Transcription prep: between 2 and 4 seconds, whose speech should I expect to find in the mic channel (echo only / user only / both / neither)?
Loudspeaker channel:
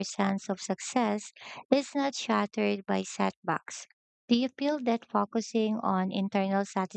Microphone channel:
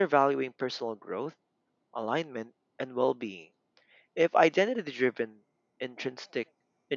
user only